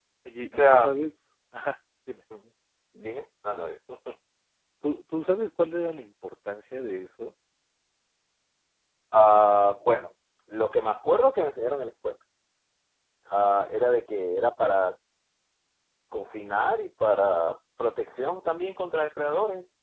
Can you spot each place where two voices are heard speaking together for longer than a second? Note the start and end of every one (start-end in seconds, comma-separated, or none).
none